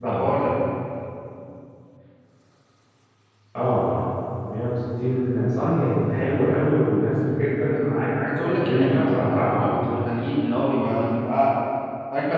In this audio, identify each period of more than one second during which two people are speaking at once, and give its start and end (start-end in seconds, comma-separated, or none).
8.3-9.8